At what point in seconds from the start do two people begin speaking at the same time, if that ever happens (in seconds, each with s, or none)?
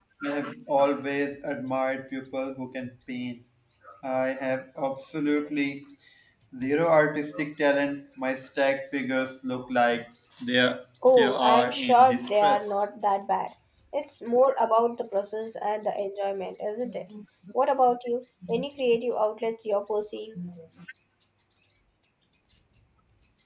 11.1 s